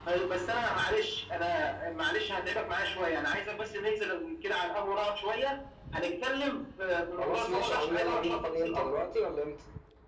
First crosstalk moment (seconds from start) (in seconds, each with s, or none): 7.2 s